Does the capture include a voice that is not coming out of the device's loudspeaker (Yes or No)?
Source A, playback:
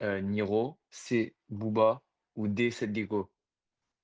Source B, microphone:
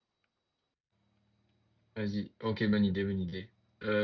Yes